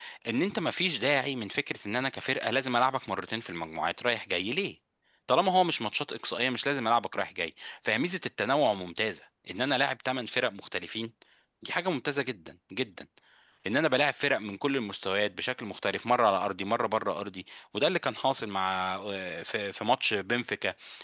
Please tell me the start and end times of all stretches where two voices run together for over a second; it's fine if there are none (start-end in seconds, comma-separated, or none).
none